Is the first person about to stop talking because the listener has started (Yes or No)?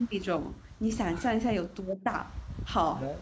No